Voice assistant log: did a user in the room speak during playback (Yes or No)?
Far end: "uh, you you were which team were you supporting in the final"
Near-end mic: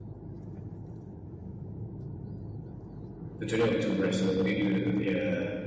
Yes